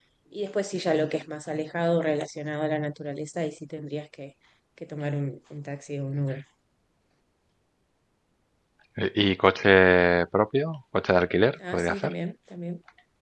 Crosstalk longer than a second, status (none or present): none